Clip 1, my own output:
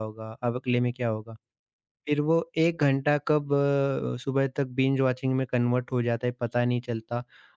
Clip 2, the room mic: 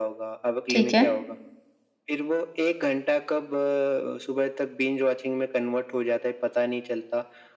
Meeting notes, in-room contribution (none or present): present